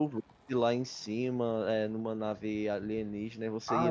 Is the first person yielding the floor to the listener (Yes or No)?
Yes